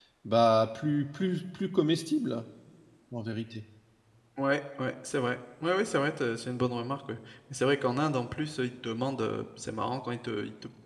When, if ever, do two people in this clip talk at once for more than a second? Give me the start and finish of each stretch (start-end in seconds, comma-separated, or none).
none